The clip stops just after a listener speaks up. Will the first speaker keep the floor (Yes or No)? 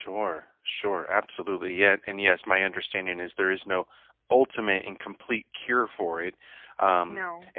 Yes